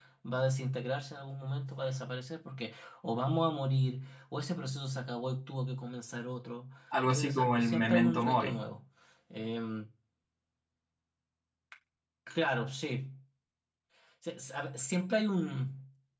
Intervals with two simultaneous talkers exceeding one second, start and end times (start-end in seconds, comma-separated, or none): 7.0-8.7